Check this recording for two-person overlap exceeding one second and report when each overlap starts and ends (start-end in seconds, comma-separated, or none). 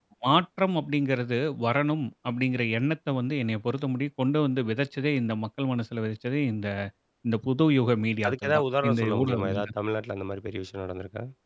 8.2-9.7